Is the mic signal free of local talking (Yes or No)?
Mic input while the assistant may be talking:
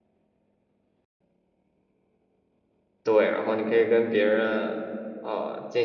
No